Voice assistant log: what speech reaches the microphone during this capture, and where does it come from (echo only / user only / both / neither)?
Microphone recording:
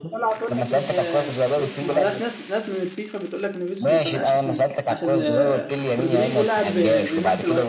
both